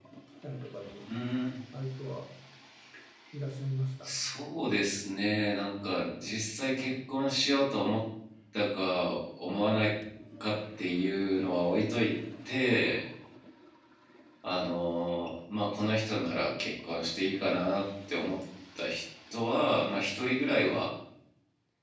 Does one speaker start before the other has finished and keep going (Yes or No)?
No